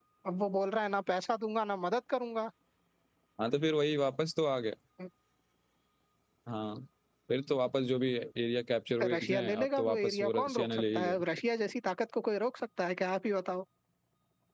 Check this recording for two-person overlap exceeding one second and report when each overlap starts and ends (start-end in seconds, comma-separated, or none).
9.1-11.2